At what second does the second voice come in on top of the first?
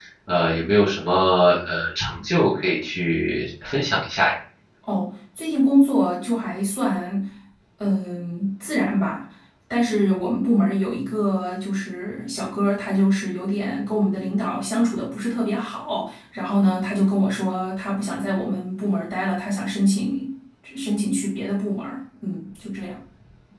none

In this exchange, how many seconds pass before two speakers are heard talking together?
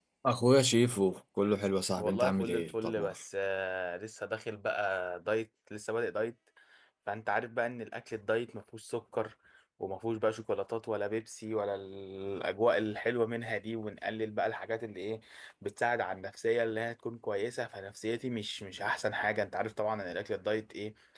2.0 s

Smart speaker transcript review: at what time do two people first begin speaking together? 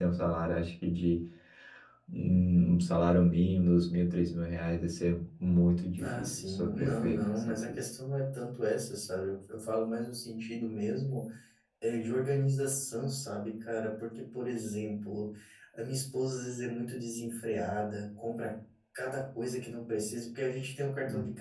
6.0 s

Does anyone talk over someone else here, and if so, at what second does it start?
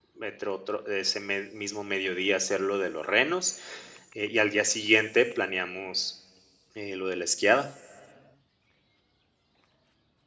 none

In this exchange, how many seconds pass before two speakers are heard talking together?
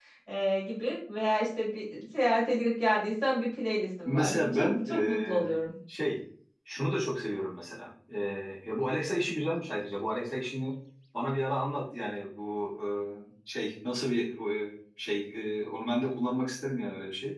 4.0 s

